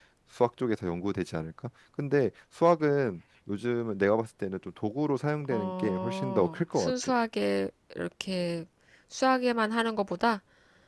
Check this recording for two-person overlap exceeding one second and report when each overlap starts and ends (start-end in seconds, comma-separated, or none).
5.5-6.9